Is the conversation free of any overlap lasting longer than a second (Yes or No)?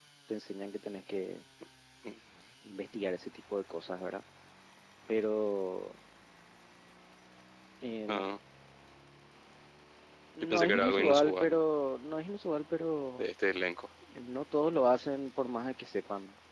No